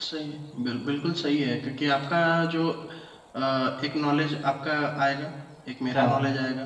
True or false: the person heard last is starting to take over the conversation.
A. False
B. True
A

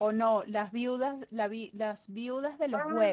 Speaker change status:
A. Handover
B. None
A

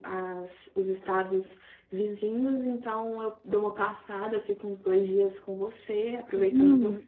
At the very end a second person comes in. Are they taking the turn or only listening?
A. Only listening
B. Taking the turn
B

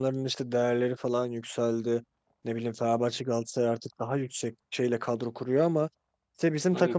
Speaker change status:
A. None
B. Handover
A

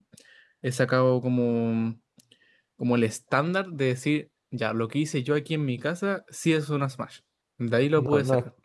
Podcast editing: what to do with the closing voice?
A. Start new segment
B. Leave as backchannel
A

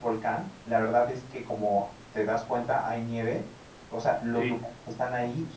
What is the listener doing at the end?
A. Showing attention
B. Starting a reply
A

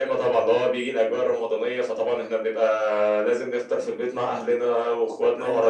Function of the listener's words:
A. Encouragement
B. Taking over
B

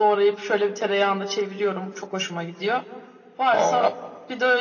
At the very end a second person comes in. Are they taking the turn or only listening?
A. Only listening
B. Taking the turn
A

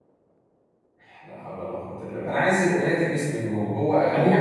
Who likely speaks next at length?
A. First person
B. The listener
B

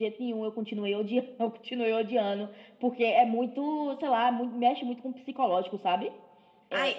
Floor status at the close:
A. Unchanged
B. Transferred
B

